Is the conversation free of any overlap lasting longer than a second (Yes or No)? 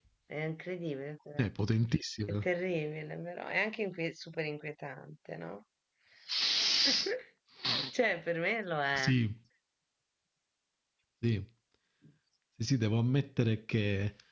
Yes